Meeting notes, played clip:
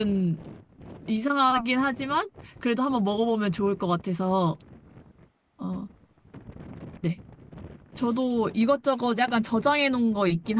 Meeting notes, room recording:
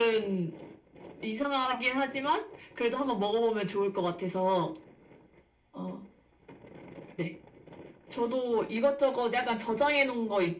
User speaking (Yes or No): No